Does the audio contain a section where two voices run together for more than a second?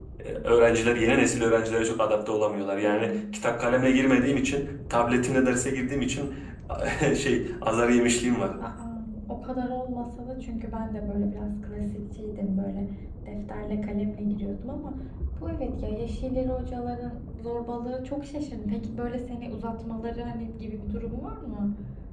No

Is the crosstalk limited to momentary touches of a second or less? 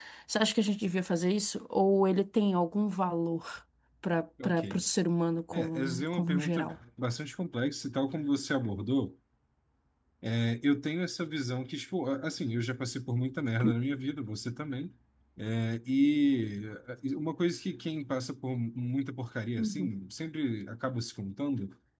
No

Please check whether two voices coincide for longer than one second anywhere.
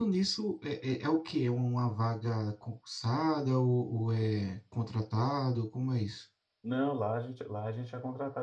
No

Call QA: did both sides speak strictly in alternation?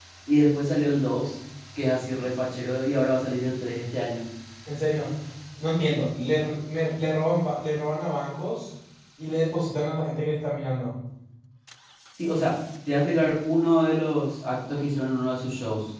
Yes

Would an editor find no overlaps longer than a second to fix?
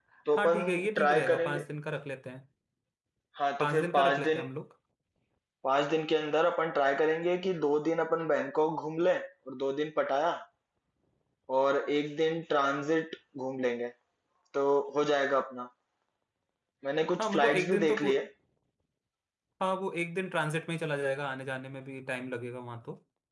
No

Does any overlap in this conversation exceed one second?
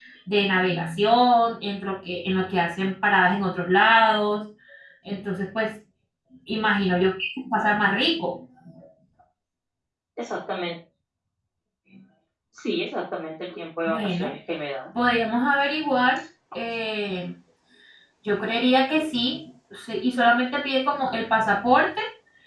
No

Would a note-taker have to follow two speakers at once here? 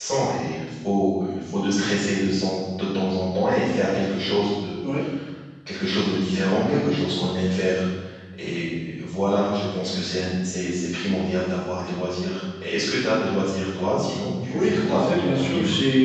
Yes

